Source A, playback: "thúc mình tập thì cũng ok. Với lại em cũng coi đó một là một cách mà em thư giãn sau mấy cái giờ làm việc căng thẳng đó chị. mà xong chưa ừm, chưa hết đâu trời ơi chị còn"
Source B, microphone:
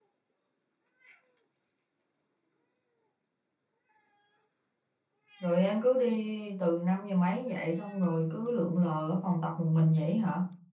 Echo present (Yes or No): No